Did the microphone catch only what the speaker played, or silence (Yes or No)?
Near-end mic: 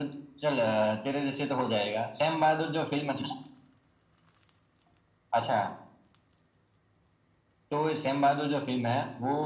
Yes